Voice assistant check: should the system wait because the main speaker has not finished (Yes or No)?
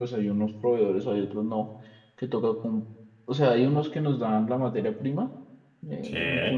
Yes